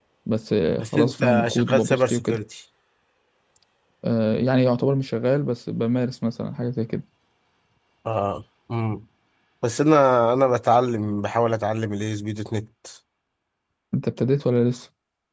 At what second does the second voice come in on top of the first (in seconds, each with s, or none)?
0.8 s